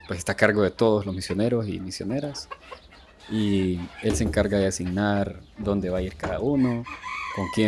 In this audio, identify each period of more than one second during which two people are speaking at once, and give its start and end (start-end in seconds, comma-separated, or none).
none